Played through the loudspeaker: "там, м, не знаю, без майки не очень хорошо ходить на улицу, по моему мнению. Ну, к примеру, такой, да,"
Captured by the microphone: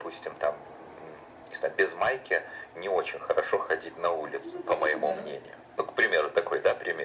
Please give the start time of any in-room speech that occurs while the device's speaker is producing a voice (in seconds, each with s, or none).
4.4 s